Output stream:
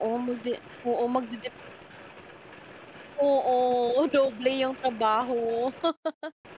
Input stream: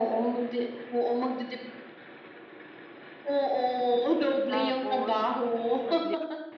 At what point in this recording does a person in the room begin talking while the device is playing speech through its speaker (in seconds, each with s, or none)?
4.5 s